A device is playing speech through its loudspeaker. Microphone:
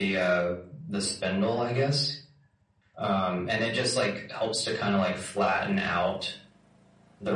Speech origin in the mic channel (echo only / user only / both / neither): echo only